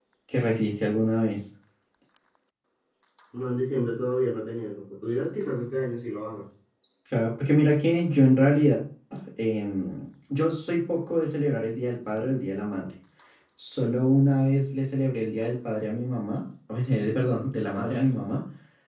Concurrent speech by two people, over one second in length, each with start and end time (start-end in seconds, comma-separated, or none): none